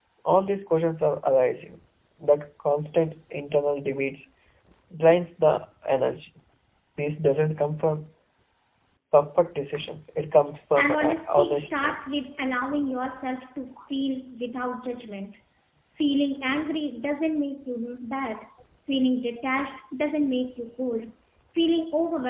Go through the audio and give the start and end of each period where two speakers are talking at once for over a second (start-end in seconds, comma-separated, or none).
10.8-12.0